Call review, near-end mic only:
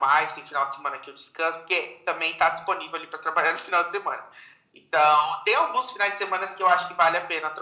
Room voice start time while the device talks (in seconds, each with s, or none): none